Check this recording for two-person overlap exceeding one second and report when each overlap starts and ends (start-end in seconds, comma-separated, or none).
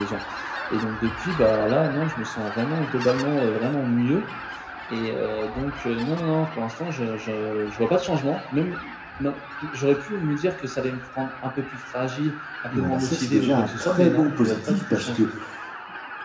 12.7-15.2